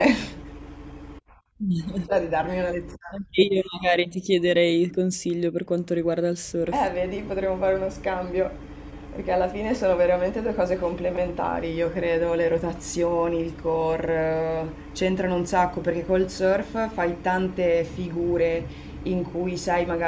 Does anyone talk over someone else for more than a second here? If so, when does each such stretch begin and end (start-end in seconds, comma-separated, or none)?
none